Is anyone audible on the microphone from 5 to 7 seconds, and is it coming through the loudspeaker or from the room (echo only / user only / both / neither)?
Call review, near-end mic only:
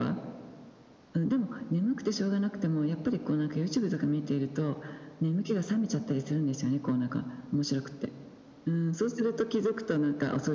echo only